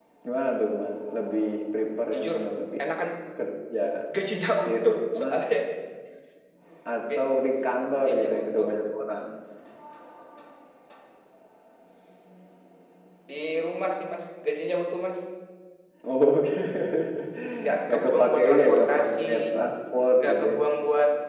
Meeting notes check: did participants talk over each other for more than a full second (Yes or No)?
Yes